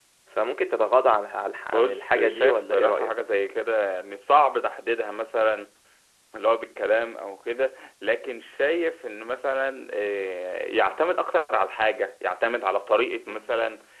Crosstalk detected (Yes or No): Yes